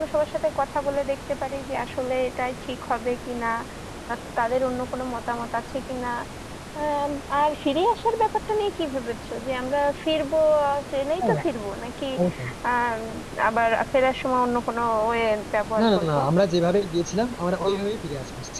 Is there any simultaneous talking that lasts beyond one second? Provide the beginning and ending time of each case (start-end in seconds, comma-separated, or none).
none